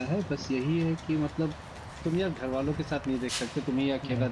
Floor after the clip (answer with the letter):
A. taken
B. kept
B